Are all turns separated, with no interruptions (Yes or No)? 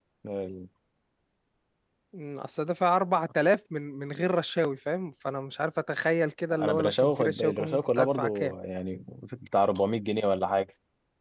No